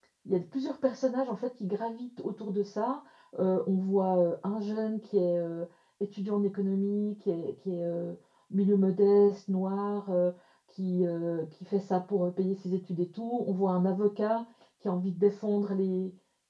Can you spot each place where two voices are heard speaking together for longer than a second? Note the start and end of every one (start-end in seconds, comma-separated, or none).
none